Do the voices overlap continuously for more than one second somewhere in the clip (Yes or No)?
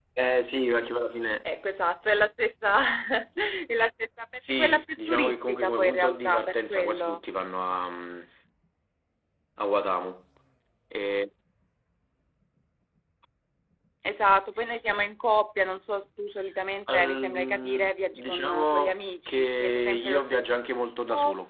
Yes